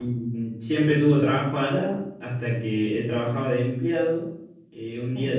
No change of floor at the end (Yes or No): Yes